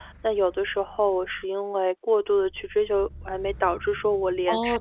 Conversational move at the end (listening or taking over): taking over